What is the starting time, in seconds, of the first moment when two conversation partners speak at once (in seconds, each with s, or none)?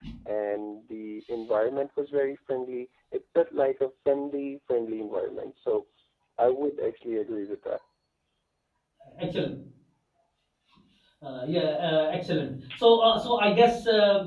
none